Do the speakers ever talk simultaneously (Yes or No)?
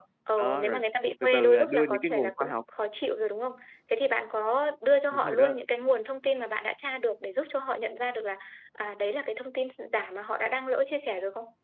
Yes